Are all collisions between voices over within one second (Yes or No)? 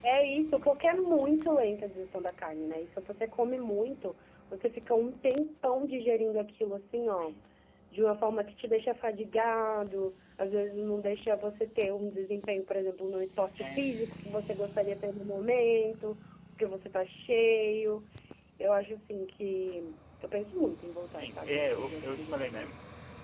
No